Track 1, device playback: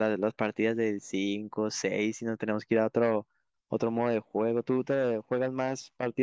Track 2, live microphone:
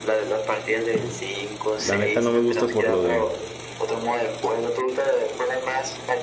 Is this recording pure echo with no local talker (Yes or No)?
No